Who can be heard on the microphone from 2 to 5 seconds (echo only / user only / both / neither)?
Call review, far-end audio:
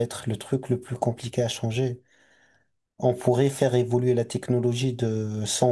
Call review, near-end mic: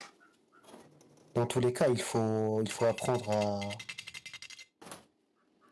user only